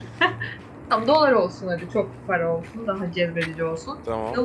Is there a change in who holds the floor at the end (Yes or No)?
No